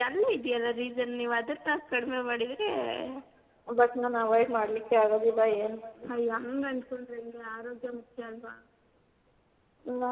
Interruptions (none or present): none